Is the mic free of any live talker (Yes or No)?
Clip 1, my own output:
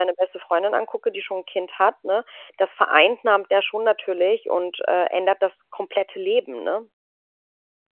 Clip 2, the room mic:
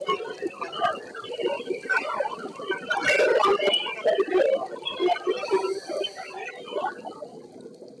Yes